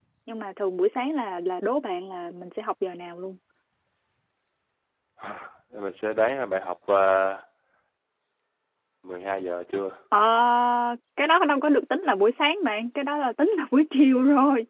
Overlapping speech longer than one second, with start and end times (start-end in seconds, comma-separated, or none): none